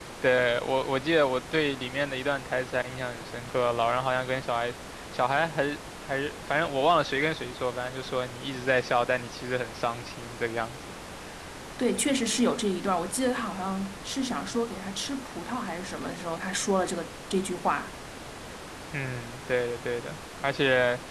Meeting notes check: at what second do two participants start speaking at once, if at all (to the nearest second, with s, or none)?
none